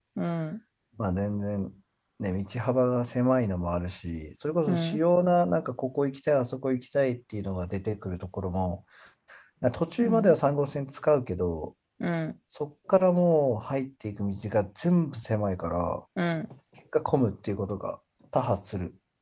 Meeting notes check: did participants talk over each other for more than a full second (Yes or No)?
No